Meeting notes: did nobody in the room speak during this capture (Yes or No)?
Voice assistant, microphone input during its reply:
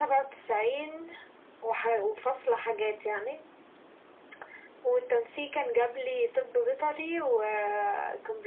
Yes